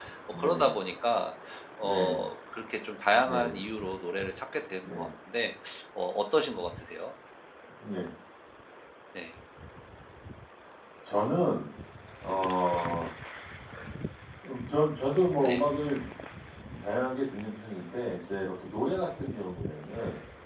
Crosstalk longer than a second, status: none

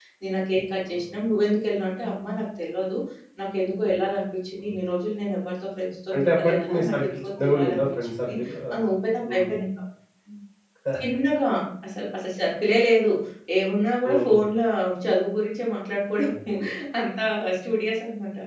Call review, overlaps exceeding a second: present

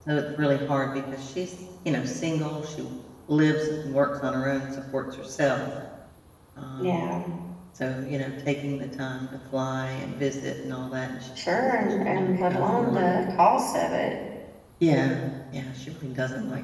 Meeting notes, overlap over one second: present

